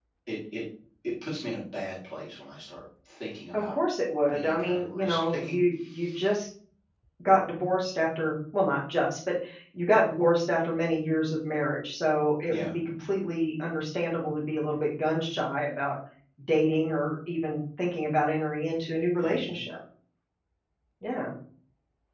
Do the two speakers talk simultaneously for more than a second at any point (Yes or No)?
Yes